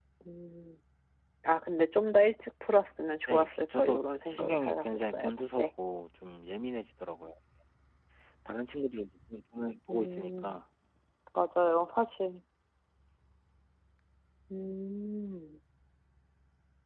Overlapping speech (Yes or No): Yes